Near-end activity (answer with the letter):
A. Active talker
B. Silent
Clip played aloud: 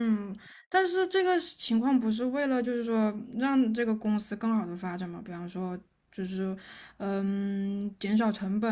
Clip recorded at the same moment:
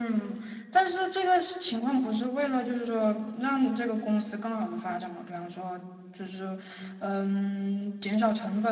B